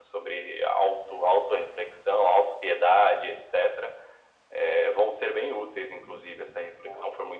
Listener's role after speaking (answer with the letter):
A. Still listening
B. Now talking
A